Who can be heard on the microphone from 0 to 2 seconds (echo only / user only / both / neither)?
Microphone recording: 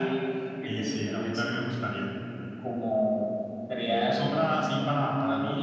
echo only